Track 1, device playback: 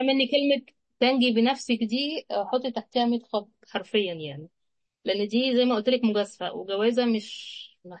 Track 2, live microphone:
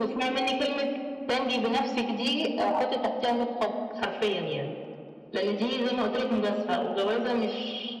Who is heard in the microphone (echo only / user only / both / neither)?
echo only